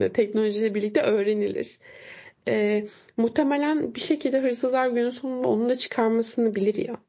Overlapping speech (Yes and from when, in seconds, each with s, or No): No